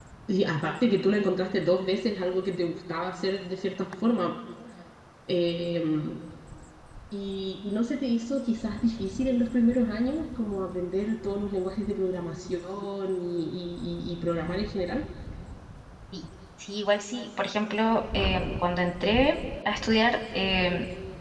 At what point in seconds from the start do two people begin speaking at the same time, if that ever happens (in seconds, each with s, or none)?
none